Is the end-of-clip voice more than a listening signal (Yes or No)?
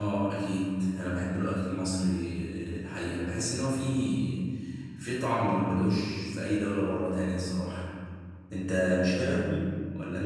Yes